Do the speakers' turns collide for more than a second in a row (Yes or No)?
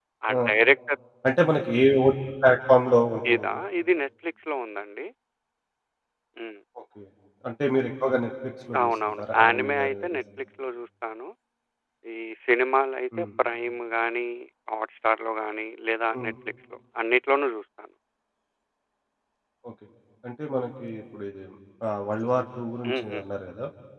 Yes